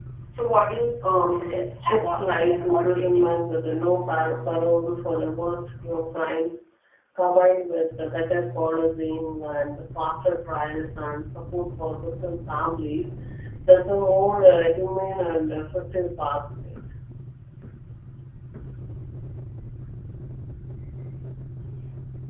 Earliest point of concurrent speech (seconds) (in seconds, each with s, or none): 1.0 s